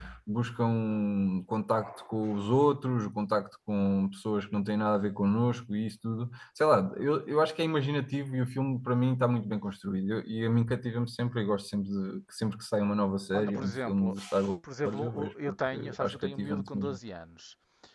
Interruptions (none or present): present